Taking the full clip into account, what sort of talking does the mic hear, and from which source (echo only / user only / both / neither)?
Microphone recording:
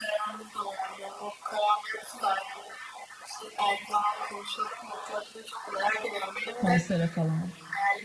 both